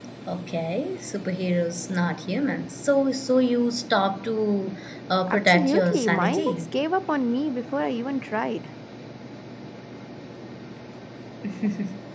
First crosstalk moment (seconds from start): 5.3 s

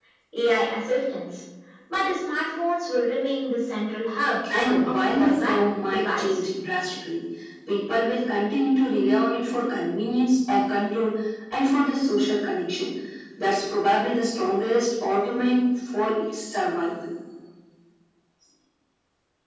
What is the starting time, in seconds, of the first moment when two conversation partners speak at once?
4.4 s

